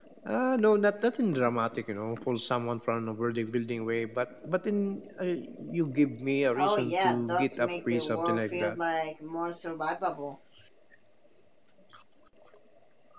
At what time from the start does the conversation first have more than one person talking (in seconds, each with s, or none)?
6.6 s